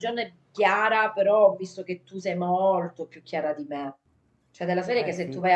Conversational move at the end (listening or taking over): listening